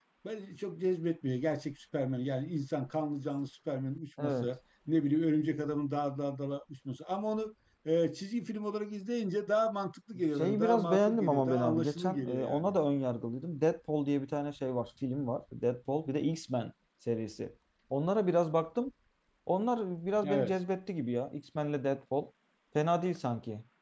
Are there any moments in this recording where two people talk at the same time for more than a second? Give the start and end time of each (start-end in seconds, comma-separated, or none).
10.4-12.7